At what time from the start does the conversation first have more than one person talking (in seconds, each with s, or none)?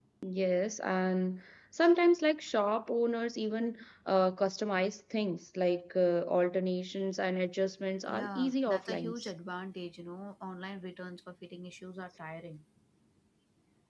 8.1 s